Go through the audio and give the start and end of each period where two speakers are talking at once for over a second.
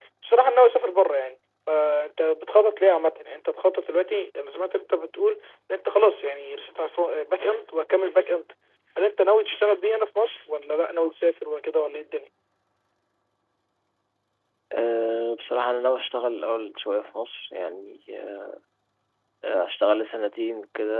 none

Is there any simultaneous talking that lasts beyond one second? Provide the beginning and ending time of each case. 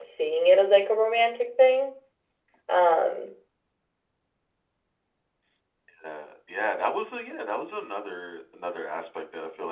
none

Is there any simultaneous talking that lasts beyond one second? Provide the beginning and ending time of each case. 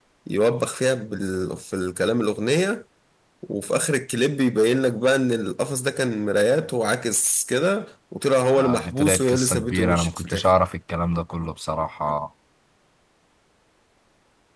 8.6-10.5

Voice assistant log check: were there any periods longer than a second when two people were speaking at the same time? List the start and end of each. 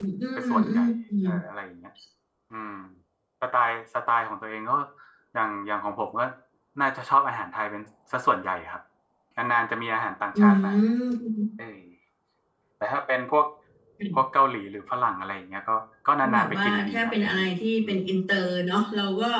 16.2-17.5

